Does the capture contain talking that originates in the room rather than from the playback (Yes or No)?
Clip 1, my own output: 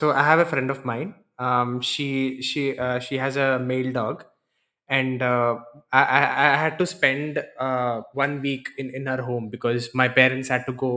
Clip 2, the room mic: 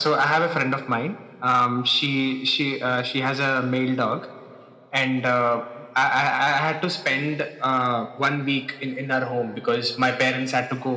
No